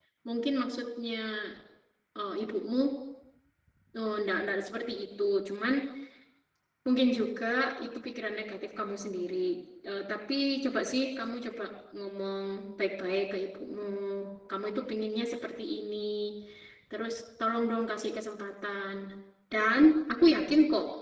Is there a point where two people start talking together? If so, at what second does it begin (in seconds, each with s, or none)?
none